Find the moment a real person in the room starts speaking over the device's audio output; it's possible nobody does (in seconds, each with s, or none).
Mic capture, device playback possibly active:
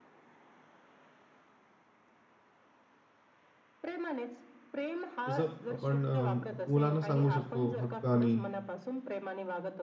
5.3 s